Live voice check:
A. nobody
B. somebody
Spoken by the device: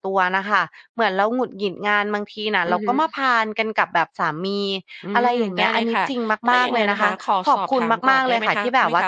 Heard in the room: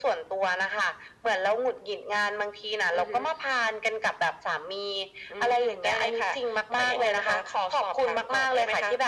A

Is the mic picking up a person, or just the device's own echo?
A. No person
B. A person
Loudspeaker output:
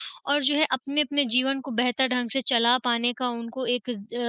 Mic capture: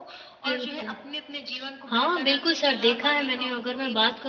B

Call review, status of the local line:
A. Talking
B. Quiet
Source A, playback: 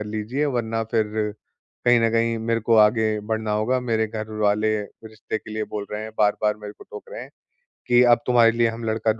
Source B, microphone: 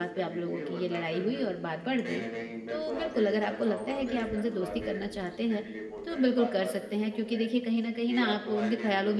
A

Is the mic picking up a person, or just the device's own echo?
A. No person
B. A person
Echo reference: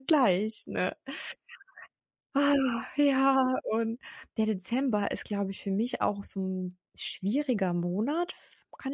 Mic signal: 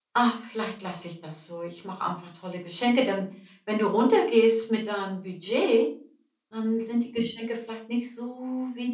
B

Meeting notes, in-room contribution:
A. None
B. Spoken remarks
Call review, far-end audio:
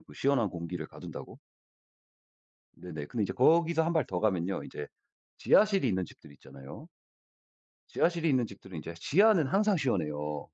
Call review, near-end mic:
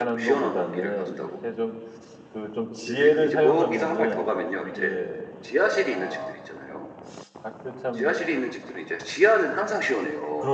B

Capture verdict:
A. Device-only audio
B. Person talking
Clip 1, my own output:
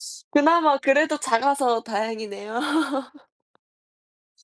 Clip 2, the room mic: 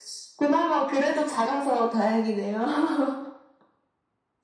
A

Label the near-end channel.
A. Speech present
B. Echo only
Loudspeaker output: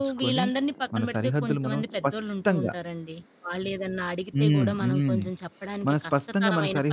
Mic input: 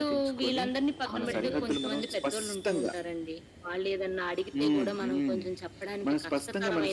A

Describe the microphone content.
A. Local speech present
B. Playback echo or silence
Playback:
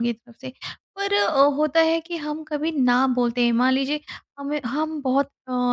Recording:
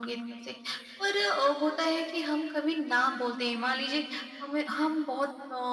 B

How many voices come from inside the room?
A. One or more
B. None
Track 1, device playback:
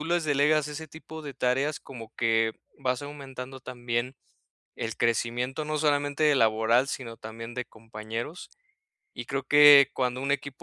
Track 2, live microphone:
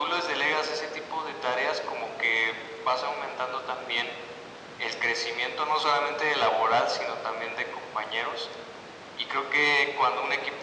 B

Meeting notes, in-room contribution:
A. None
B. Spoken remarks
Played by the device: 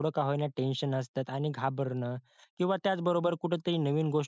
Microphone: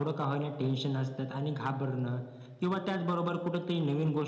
A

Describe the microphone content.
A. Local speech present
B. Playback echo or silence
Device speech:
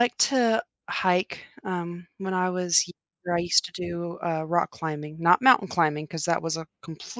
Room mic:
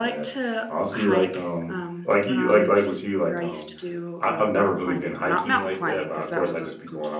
A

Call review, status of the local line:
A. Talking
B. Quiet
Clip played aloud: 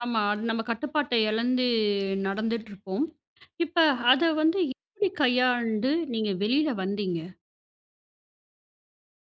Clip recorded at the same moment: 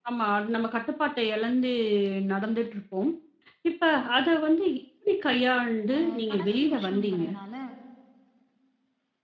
A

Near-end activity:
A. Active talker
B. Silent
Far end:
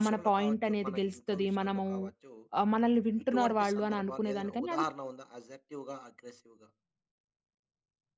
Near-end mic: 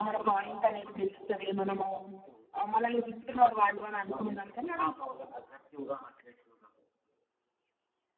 B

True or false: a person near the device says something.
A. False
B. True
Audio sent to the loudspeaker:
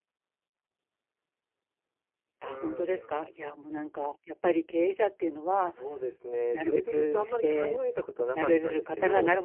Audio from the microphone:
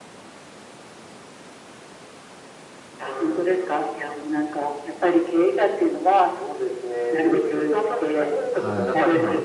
B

